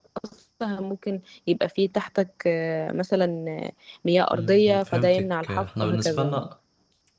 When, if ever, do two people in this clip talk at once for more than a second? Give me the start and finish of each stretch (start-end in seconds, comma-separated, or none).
4.3-6.5